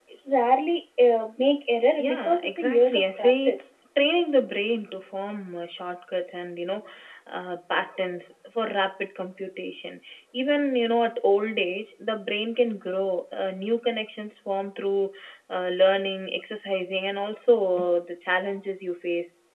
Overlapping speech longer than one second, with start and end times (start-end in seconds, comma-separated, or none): 2.0-3.7